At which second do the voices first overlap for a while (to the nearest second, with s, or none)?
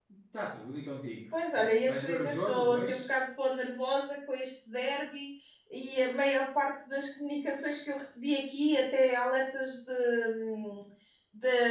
1 s